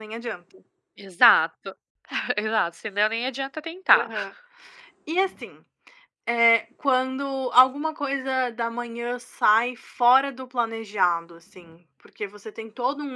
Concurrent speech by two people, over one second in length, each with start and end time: none

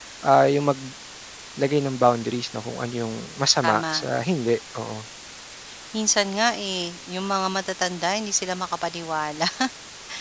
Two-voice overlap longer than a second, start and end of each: none

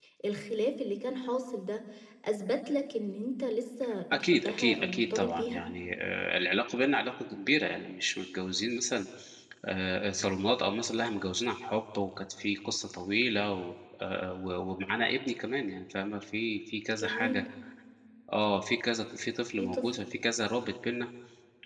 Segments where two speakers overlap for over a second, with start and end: 4.1-5.6

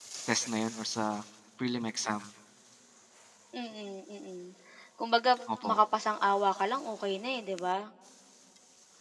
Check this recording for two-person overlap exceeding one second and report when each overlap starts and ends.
none

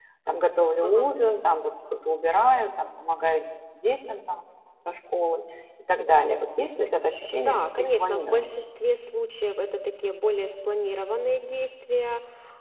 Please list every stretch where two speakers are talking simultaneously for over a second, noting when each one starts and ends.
7.3-8.6

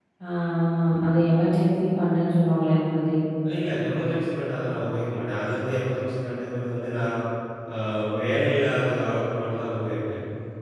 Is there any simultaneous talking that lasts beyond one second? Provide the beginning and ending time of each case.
none

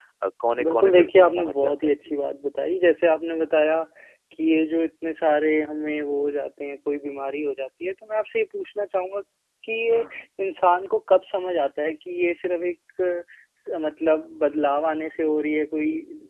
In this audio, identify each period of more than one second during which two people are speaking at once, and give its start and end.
0.6-2.1

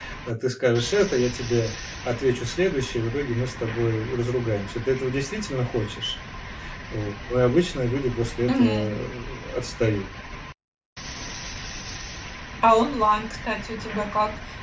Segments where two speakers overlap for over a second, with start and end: none

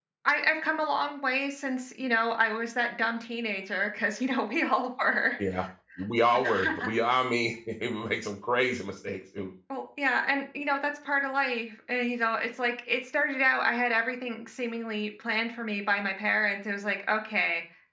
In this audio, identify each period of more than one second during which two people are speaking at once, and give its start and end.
none

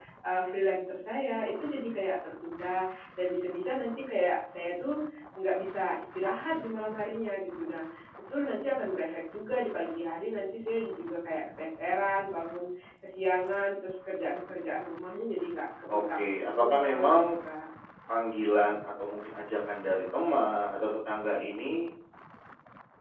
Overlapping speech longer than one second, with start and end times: 16.0-17.2

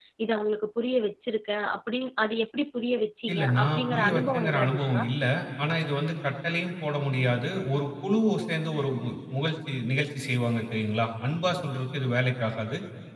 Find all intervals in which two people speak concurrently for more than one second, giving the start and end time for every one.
3.3-5.0

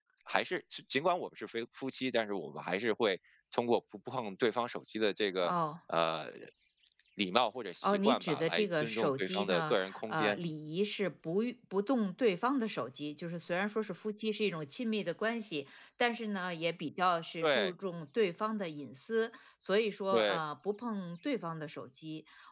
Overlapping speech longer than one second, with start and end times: 7.8-10.4

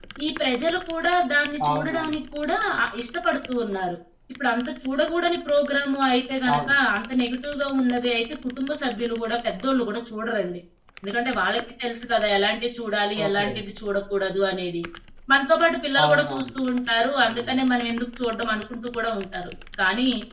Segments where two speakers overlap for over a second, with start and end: none

